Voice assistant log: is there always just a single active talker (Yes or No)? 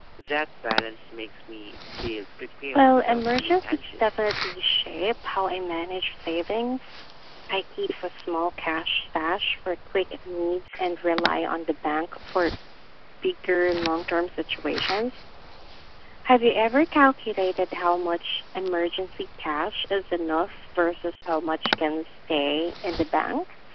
No